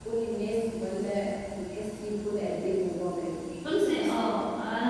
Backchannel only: No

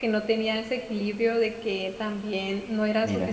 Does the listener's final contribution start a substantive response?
No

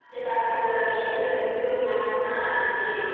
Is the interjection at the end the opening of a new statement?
Yes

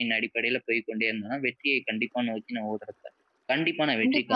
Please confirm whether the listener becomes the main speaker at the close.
Yes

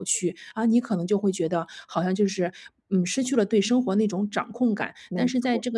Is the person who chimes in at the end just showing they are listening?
Yes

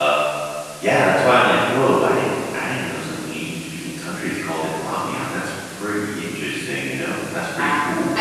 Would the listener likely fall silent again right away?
No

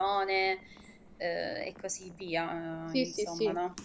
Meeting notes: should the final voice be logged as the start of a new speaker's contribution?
Yes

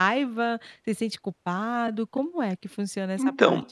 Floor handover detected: Yes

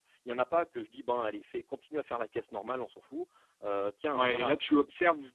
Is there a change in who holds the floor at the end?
Yes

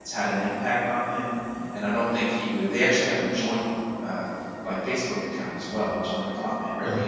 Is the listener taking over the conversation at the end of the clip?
No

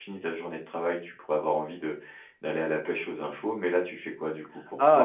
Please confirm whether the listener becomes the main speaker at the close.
Yes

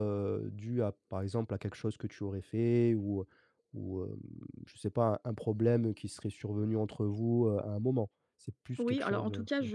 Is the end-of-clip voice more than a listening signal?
Yes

